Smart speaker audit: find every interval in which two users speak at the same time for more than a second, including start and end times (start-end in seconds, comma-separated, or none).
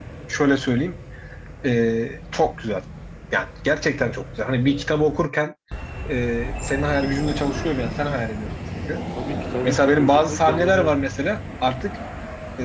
9.6-10.9